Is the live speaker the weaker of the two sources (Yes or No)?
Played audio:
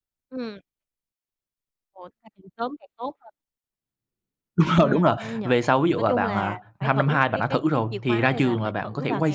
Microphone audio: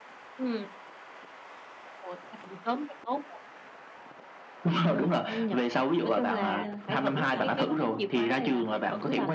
Yes